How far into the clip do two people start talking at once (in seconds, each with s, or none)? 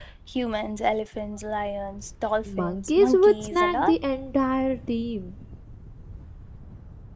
2.5 s